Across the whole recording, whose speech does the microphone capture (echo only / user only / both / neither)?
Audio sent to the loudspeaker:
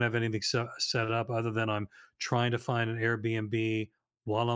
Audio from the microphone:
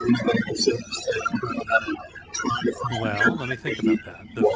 both